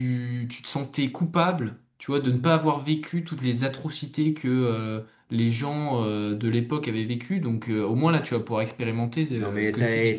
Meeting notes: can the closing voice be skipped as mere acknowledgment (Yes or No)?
No